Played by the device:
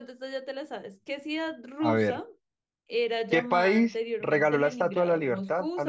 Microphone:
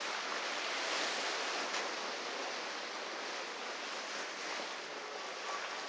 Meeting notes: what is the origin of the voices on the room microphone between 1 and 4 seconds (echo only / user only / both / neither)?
neither